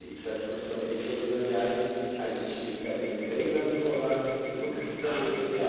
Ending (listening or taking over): taking over